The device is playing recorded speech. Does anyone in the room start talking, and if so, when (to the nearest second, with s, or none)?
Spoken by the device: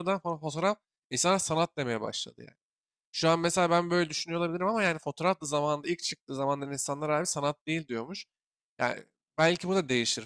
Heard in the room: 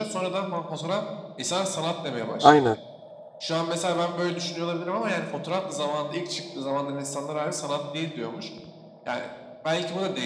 2 s